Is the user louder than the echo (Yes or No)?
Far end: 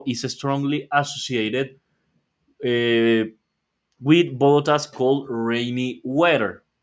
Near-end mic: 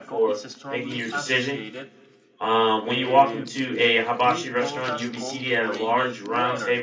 Yes